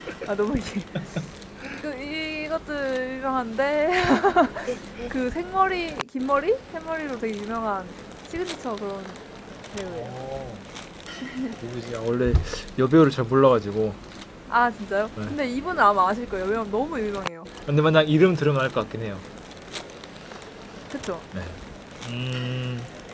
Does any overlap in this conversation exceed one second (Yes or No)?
No